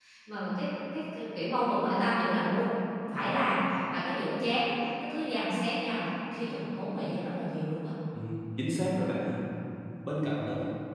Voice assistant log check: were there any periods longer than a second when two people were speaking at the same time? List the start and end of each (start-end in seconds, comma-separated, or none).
none